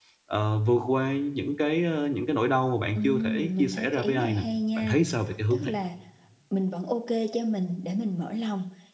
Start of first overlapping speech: 3 s

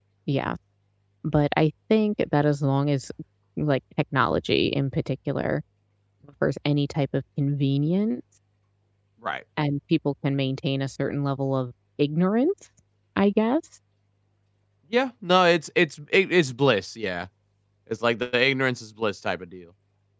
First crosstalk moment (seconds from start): none

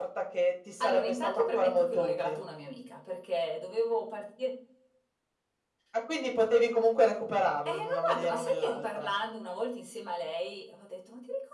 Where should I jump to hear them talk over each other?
1 s

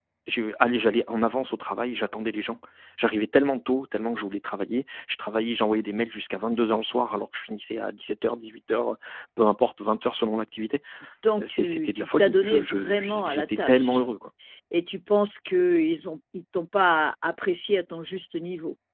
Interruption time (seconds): 11 s

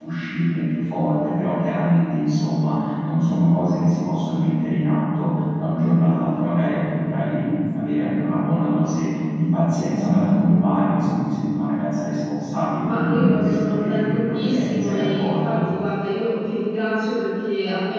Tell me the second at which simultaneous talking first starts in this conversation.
13 s

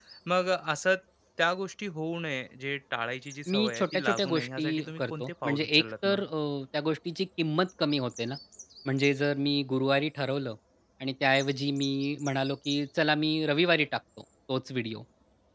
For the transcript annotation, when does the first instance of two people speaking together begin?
3 s

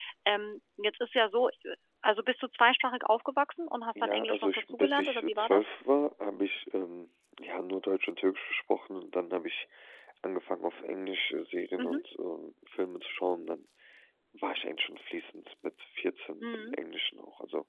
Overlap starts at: 4 s

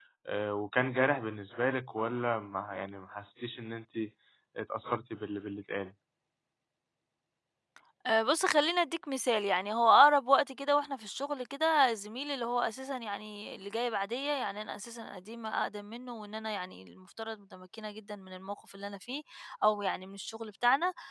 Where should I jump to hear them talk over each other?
none

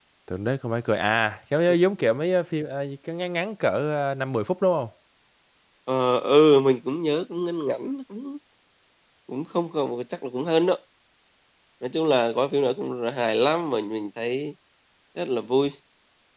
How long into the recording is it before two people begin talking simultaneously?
none

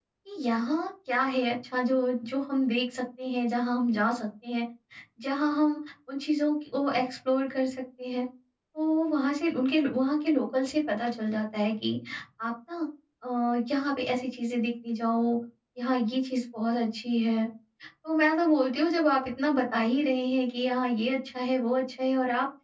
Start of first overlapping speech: none

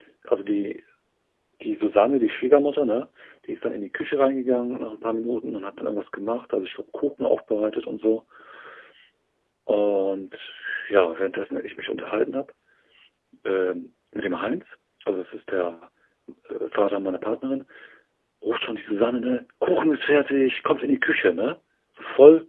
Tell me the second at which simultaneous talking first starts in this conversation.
none

